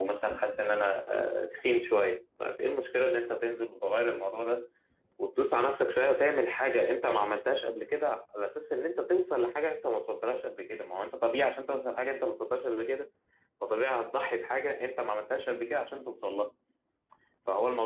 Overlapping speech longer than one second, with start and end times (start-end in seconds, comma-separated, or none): none